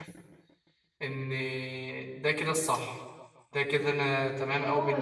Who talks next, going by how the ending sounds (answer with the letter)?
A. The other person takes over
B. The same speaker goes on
A